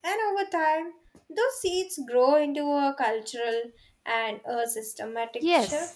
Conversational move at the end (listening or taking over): taking over